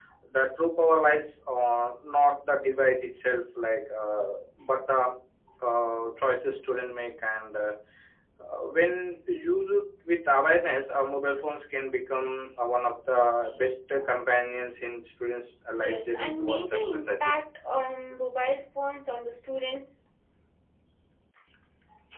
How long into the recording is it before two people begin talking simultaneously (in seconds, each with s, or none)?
15.7 s